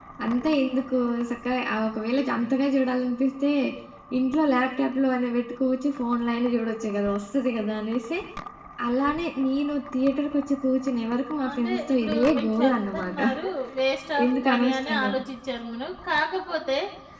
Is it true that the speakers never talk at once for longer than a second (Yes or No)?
No